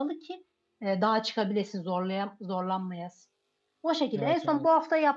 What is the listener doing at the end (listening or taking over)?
listening